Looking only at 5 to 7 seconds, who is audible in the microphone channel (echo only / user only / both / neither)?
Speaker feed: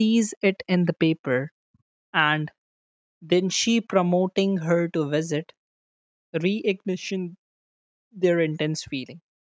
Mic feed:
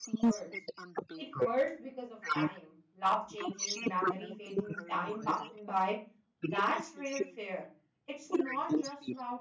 both